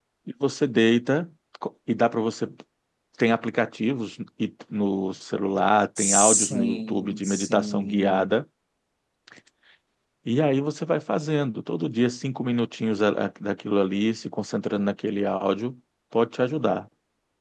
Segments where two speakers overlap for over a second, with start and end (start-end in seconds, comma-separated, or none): 6.0-8.4